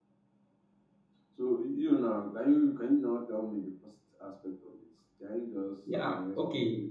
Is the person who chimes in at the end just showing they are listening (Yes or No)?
No